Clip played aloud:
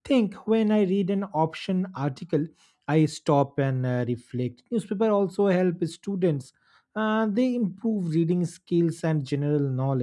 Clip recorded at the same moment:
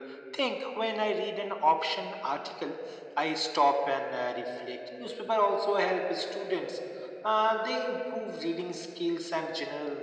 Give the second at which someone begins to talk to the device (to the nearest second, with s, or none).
none